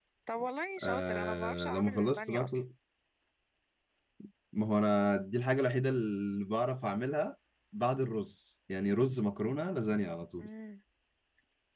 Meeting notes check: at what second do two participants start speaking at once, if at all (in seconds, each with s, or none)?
0.8 s